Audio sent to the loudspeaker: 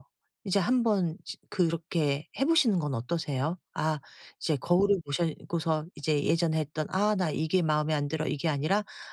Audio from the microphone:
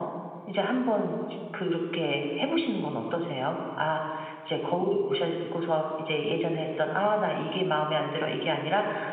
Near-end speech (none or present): none